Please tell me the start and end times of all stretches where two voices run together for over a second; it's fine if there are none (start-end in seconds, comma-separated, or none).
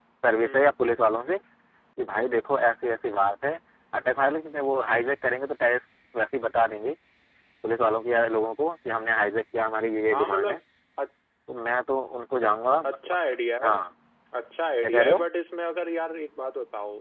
none